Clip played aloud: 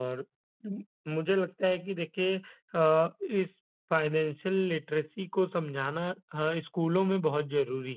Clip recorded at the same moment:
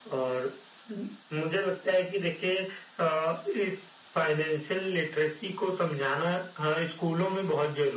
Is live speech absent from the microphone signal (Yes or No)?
Yes